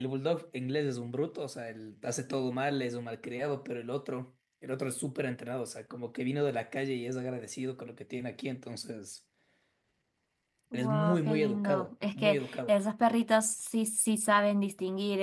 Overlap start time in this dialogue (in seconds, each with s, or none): 10.7 s